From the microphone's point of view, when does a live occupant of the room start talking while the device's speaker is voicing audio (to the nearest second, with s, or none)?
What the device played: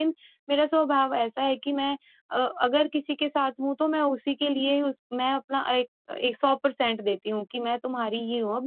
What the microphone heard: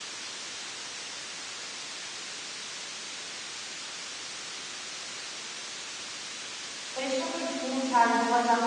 7 s